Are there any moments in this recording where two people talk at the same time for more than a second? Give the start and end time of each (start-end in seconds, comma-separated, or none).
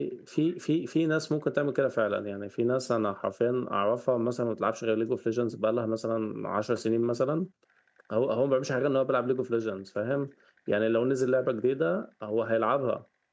none